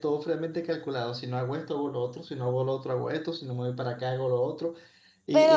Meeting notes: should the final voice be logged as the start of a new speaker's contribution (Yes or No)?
Yes